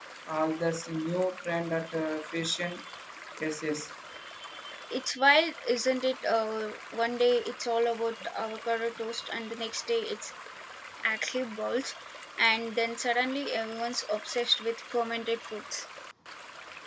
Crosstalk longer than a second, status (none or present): none